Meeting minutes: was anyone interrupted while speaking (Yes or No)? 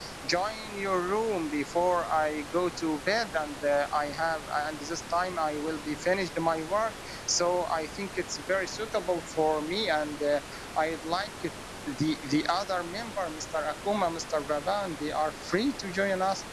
No